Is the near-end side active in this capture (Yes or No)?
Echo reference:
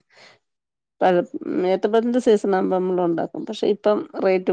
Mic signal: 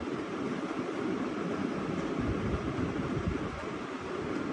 No